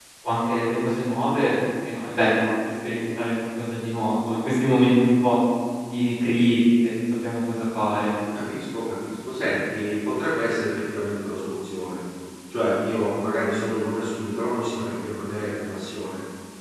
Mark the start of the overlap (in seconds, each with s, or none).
none